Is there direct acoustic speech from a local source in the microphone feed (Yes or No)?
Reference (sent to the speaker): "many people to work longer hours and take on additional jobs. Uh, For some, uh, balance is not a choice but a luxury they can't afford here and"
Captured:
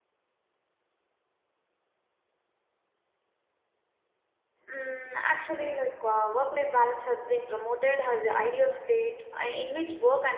Yes